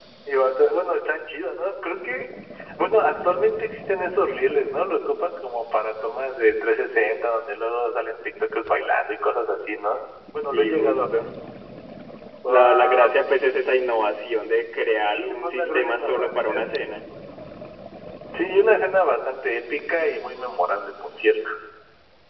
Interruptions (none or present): present